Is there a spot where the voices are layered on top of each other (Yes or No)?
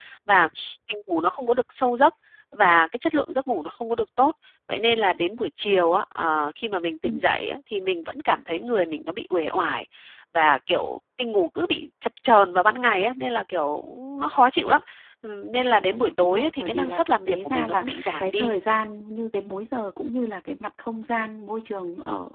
Yes